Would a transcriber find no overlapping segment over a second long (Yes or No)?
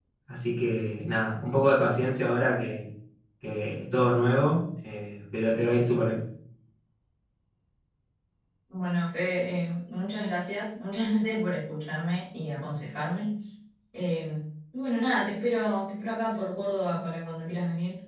Yes